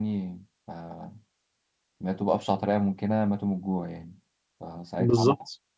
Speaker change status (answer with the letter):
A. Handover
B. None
B